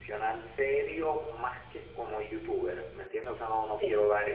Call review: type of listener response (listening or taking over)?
listening